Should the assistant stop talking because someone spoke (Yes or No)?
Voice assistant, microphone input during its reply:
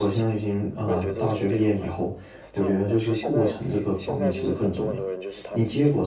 Yes